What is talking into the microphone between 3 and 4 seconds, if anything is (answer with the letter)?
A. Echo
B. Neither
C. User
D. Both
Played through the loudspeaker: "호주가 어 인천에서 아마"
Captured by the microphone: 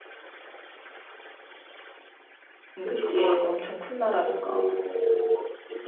D